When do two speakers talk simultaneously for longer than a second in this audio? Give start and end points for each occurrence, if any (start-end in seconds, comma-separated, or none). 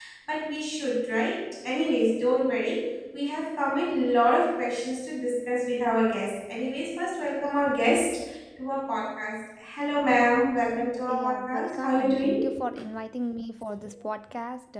11.1-12.3